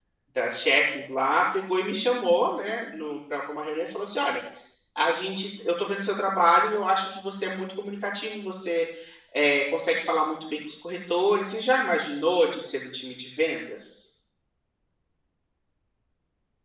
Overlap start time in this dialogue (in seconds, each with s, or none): none